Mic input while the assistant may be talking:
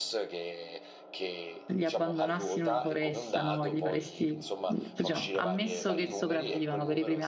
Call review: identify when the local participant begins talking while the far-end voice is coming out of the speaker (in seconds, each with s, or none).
1.7 s